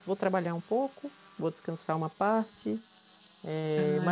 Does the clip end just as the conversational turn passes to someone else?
No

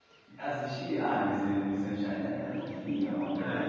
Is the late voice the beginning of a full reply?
Yes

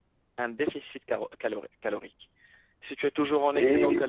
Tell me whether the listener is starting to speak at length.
No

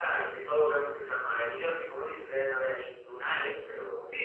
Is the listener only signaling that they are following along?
No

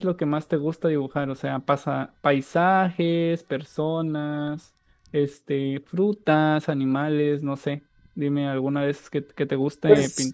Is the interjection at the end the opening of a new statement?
Yes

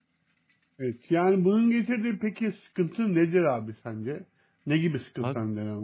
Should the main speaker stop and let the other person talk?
Yes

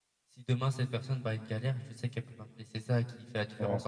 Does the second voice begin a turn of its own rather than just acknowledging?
No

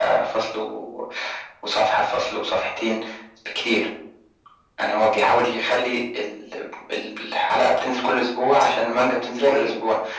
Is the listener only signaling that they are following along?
Yes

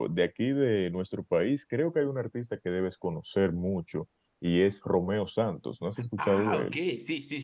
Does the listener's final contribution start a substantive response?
Yes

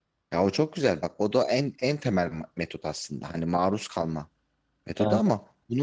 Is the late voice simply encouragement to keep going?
Yes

